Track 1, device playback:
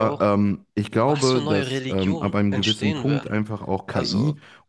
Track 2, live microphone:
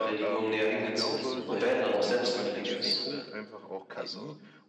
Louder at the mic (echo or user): user